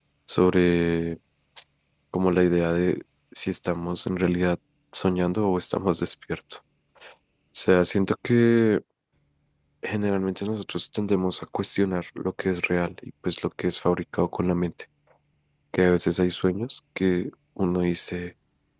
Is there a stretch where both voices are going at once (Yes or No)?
No